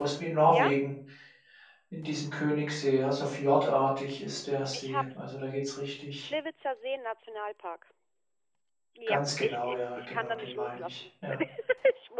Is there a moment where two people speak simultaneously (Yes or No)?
Yes